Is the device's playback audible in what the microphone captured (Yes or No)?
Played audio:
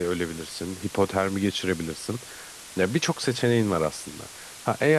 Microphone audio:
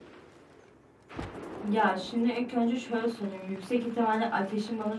No